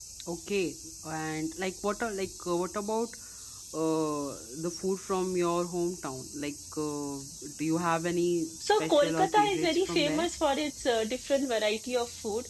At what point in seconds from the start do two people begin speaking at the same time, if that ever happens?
8.6 s

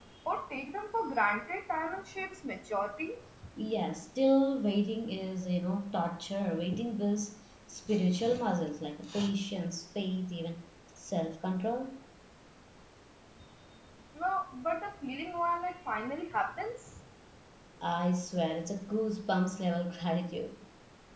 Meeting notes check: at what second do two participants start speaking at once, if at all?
none

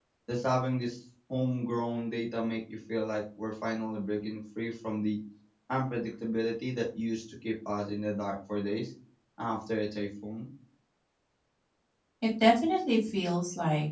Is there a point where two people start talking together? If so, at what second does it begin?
none

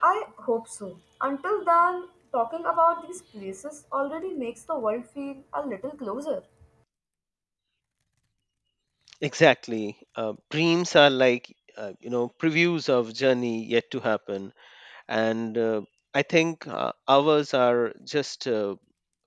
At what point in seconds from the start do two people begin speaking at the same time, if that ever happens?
none

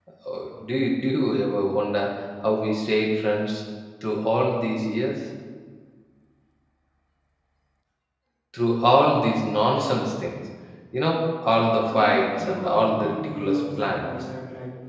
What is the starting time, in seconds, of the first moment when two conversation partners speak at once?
11.6 s

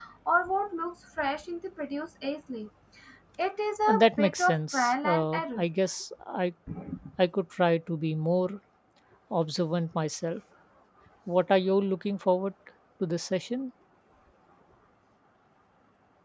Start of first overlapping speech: 3.9 s

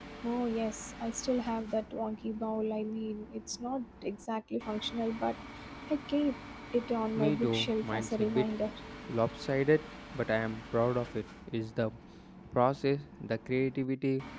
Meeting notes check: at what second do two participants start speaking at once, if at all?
7.2 s

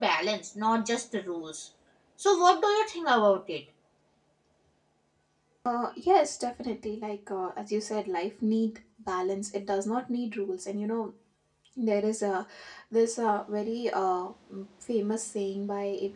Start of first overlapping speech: none

